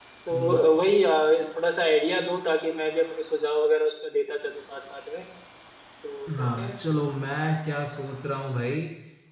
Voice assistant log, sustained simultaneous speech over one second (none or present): none